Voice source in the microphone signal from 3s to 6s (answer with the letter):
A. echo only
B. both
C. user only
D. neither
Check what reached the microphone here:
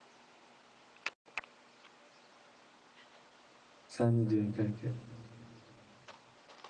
C